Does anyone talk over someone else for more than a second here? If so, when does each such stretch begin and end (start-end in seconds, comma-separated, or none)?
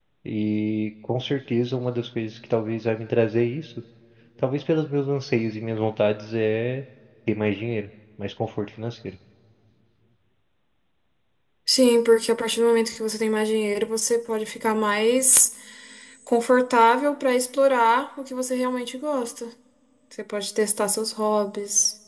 none